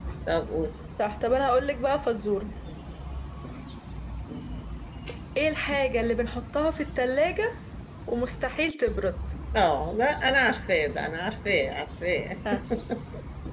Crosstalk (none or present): none